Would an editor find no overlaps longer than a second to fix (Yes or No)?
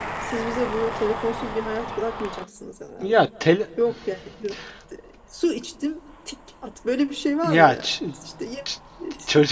Yes